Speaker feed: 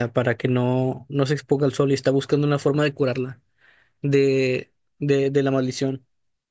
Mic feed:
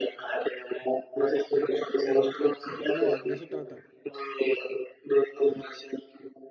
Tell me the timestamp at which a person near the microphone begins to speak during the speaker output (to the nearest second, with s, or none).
3 s